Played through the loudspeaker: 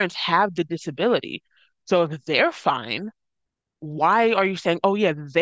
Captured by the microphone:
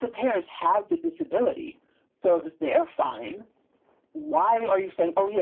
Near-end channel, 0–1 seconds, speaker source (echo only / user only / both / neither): echo only